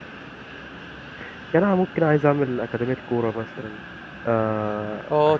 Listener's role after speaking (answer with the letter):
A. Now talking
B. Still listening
A